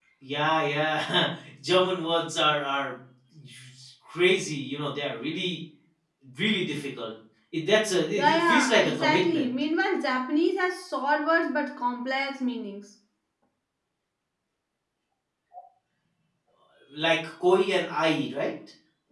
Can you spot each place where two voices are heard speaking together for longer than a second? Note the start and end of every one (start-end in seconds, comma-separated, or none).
8.2-9.5